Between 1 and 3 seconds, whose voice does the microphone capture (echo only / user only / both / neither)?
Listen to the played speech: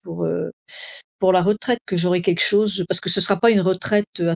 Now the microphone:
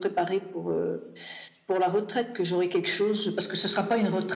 echo only